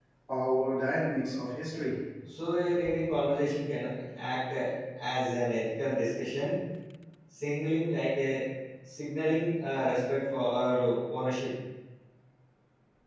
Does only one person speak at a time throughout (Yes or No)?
Yes